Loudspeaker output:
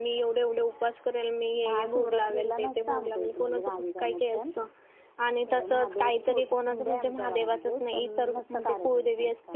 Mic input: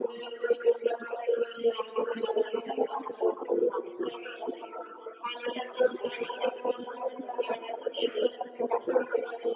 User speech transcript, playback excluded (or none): none